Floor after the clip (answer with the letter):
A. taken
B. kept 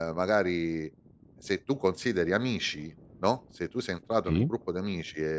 B